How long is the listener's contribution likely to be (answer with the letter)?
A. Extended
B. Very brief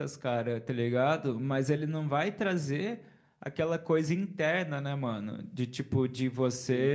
B